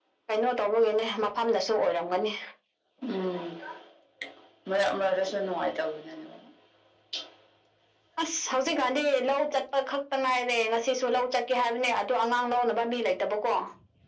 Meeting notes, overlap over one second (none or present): none